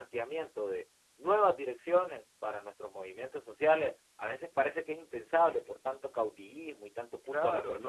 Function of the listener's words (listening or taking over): taking over